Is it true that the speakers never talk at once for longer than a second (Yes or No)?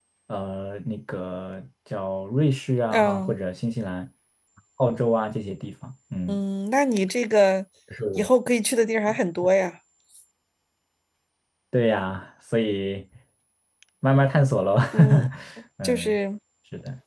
Yes